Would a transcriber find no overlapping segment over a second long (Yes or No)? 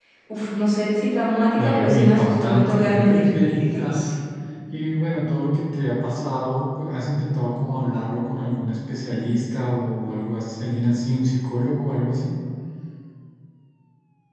No